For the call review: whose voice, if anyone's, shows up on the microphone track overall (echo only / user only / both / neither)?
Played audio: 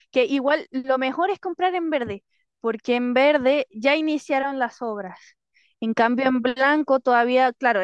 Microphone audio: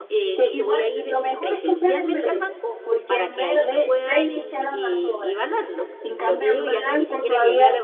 both